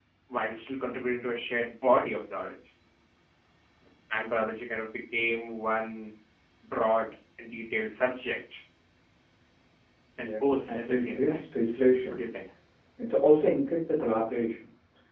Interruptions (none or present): present